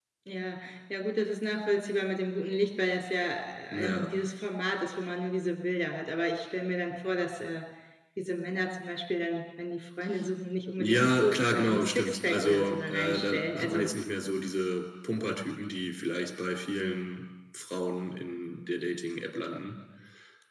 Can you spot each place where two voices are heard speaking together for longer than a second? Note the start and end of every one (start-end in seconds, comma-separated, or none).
10.8-13.9